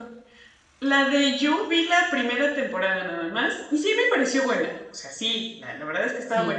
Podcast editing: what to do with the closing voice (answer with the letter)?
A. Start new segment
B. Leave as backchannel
B